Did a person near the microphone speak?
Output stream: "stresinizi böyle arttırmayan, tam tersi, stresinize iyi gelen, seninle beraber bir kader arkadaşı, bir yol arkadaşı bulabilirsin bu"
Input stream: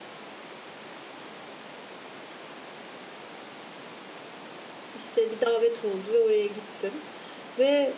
Yes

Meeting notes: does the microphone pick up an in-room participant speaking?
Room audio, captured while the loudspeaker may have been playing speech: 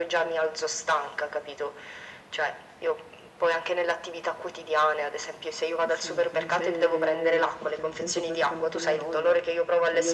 Yes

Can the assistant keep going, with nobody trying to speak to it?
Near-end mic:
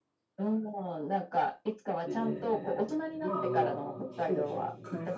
No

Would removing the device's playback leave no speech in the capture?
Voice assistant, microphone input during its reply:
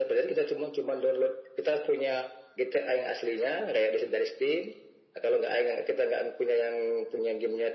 Yes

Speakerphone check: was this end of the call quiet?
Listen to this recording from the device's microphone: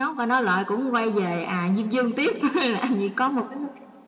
Yes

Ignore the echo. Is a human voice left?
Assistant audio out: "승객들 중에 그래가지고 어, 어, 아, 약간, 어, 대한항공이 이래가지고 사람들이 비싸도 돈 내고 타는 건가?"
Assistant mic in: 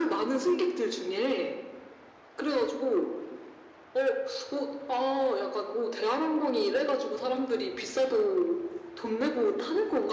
No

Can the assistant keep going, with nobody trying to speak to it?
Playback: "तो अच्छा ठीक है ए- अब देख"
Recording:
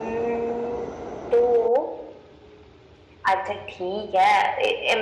Yes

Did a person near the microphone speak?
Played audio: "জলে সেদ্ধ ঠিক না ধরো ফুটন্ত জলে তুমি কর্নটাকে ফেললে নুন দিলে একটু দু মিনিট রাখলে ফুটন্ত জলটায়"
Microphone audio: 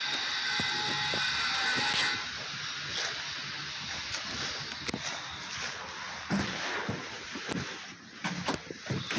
No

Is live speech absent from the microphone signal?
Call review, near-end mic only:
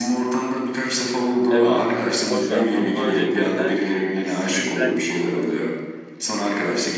No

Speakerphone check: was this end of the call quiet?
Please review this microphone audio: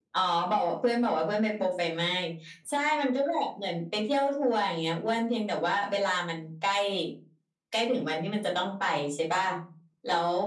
Yes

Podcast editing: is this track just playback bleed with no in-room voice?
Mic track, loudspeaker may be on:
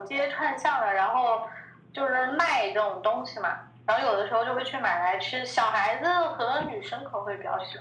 Yes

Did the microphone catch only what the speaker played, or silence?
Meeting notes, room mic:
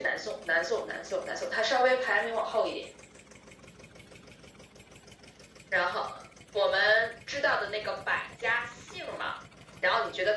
Yes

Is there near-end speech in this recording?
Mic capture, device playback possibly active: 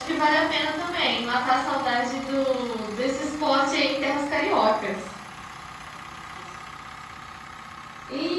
Yes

